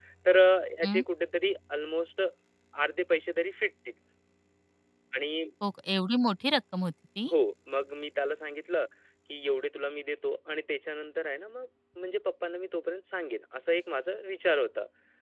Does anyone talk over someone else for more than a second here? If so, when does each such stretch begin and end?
none

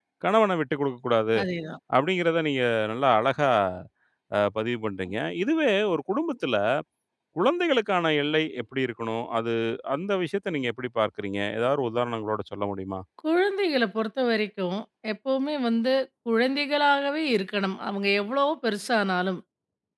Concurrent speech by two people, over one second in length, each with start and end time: none

